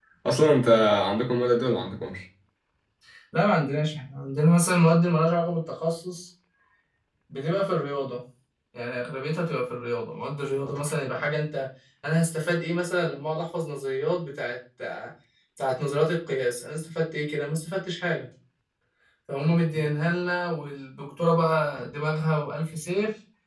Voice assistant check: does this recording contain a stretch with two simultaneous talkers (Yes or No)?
No